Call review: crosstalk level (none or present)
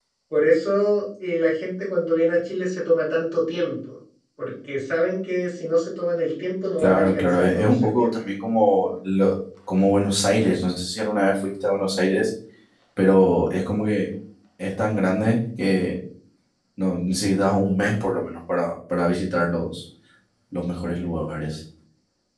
present